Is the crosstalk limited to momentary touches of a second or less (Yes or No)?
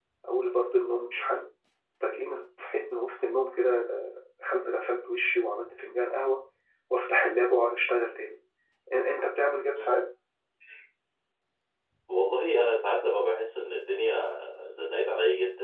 Yes